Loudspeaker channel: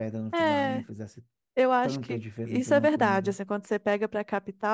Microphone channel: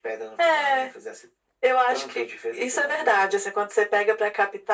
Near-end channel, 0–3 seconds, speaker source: echo only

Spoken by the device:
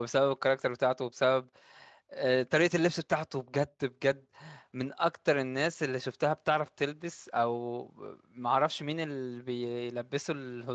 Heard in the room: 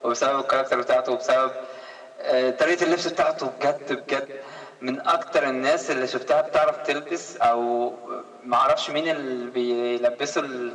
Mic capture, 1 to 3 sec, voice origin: echo only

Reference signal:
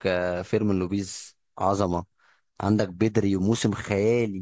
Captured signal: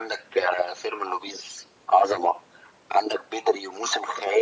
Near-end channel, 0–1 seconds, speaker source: echo only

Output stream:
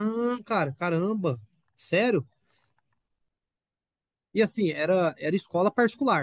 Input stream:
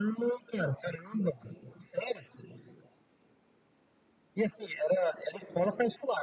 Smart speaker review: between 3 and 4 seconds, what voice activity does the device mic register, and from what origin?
neither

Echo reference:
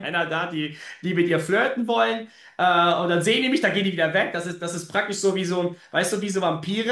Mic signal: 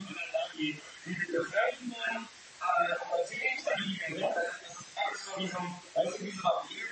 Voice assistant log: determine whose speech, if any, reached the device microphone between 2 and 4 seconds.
echo only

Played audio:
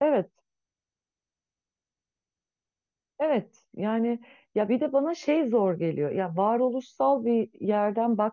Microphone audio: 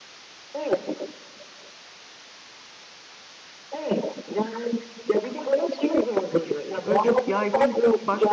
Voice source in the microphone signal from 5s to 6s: echo only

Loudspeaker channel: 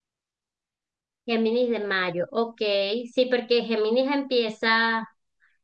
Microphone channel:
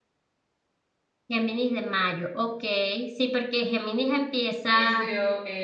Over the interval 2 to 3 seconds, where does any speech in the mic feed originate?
echo only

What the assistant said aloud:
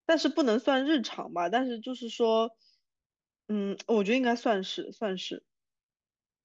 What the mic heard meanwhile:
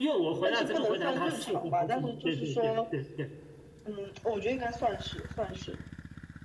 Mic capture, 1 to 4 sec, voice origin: both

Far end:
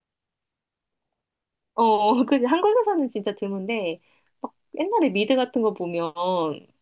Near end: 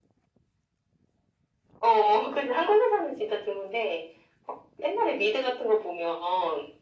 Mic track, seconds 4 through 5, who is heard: echo only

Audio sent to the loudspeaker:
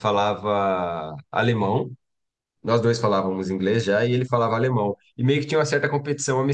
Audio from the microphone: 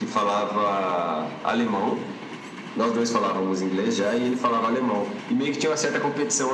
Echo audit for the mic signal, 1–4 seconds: echo only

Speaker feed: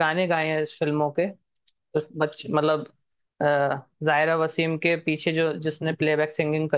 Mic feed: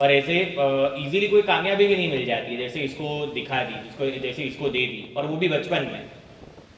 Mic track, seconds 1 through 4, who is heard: user only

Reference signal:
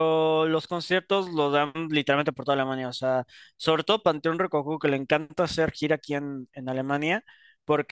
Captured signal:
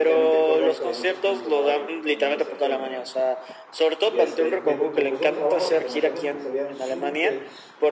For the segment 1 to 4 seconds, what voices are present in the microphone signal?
both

